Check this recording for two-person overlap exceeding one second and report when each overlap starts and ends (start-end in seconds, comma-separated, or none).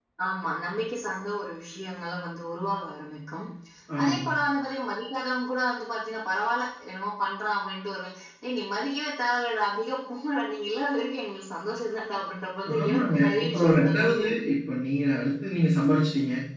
12.8-14.3